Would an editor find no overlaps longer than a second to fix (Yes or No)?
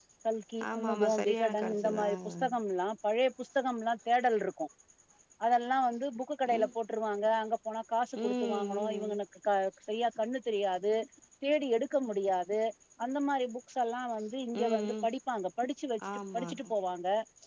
No